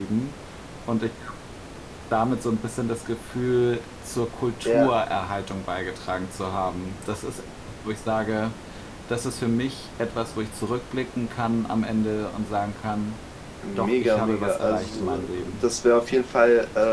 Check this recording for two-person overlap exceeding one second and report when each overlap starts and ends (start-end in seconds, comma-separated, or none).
13.8-15.7